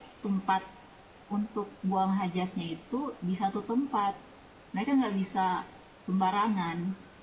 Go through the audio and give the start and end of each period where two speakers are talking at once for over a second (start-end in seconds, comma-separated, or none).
none